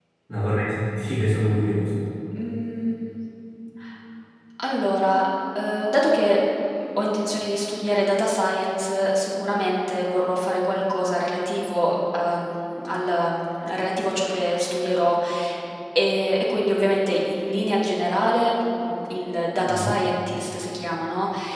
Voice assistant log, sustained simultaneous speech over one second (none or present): none